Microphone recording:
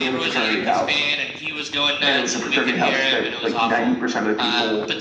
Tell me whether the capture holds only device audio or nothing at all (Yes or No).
Yes